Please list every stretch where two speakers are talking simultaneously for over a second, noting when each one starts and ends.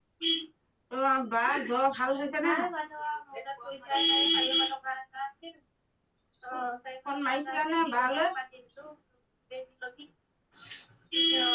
7.0-8.3

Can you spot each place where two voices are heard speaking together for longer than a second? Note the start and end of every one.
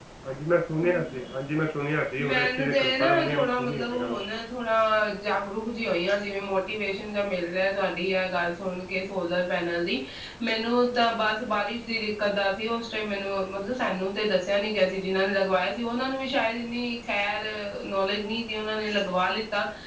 2.2-4.2

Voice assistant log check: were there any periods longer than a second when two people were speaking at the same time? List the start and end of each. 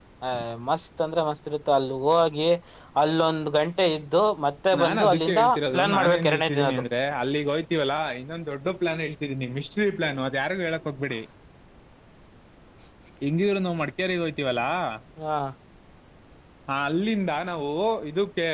4.8-6.8

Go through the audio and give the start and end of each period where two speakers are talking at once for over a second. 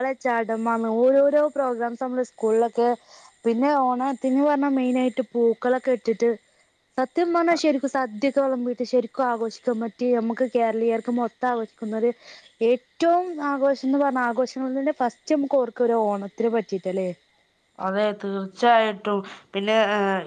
none

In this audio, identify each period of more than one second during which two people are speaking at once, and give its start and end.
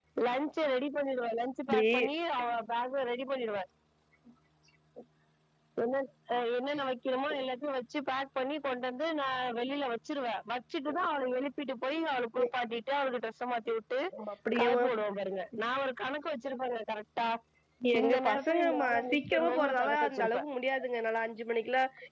18.0-20.4

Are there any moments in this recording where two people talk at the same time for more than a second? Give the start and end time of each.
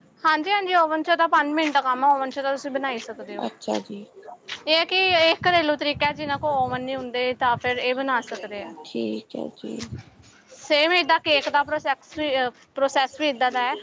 none

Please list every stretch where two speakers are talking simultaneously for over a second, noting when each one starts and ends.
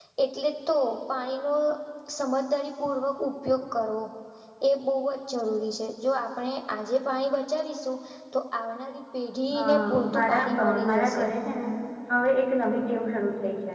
9.5-11.3

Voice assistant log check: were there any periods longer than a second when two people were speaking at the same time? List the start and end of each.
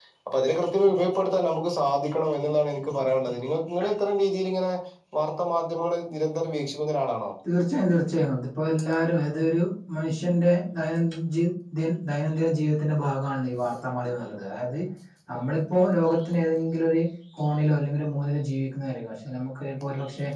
none

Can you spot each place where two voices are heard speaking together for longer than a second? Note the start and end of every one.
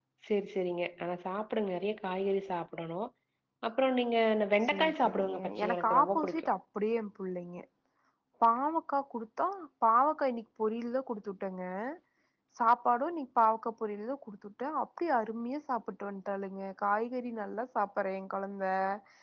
4.7-6.5

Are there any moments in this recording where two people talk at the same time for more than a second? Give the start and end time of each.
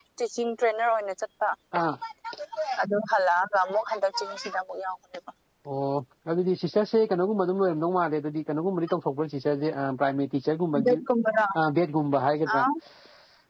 none

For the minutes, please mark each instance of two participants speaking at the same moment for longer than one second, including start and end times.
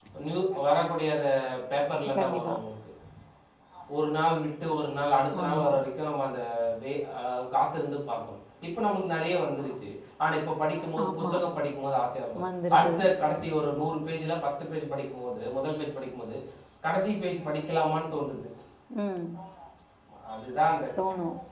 none

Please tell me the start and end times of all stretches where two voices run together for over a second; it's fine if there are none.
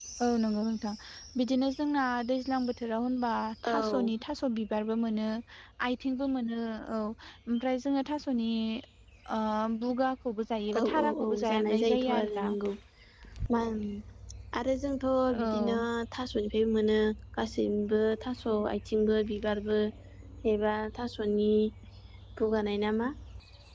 10.8-12.5

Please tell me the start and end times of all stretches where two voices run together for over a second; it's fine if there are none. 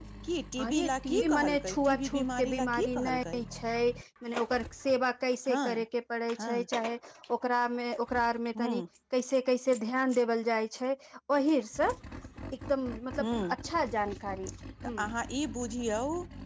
0.6-3.4

